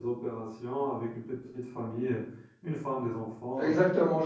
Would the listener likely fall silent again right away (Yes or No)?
No